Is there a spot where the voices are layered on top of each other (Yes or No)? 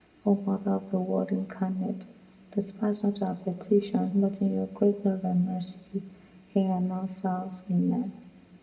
No